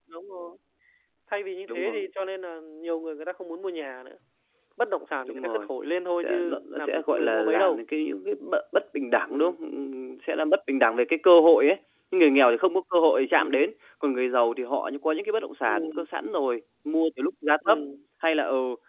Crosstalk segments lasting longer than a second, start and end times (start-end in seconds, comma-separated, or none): 6.2-7.8